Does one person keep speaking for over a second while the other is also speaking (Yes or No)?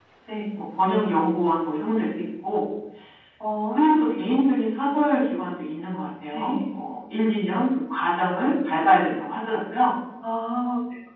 No